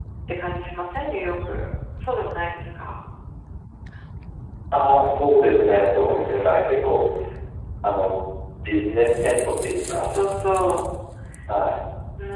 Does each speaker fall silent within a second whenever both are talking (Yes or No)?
Yes